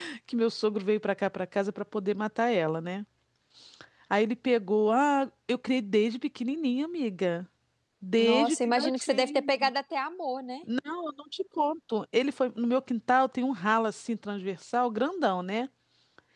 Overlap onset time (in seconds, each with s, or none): 8.2 s